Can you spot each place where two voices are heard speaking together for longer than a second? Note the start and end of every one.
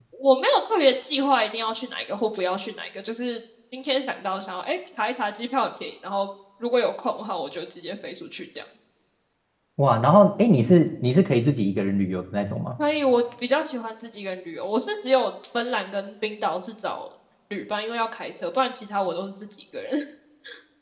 none

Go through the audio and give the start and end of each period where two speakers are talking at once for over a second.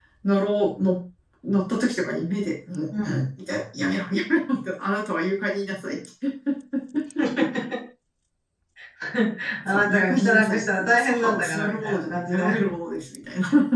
9.7-12.5

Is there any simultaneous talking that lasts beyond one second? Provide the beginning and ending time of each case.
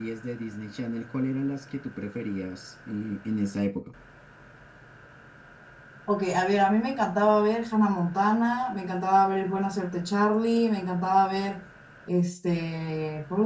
none

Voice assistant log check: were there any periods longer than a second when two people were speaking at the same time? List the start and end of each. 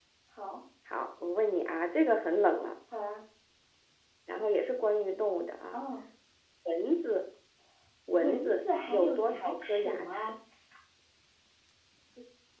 8.2-10.3

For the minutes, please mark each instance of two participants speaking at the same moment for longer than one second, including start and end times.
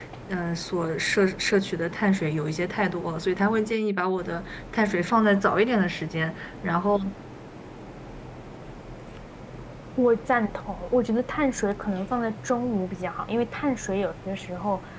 none

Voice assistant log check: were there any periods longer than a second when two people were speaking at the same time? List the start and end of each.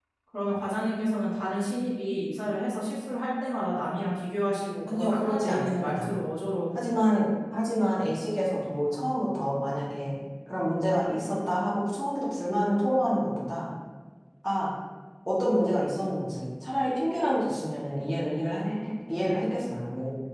4.9-6.1

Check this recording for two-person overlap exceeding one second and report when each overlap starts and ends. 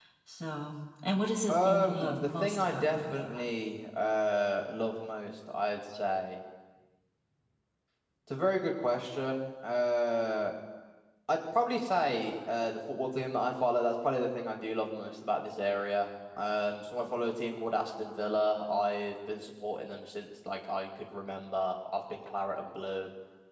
1.5-3.4

